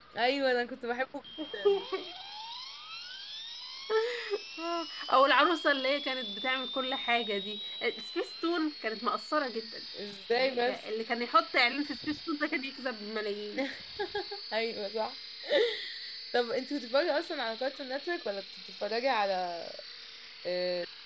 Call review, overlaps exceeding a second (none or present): none